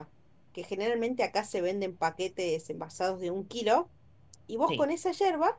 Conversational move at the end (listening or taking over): listening